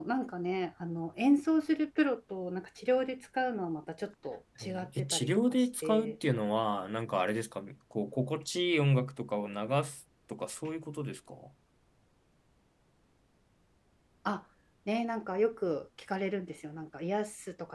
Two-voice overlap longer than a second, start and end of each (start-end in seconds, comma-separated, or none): 4.6-6.2